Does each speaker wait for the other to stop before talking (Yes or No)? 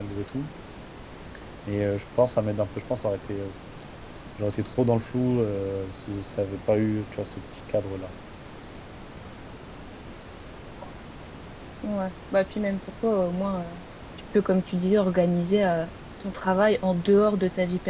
Yes